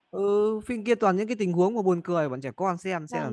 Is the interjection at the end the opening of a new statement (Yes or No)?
Yes